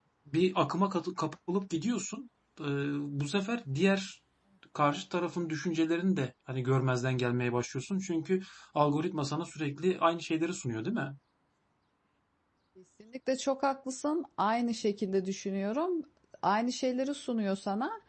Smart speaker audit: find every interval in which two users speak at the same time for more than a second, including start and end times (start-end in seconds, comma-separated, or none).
none